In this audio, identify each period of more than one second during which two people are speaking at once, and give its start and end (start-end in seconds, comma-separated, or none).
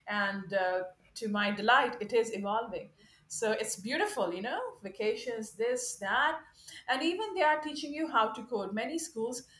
none